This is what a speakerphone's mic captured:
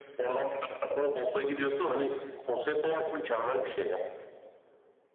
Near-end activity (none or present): none